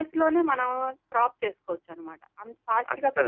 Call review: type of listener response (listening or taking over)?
taking over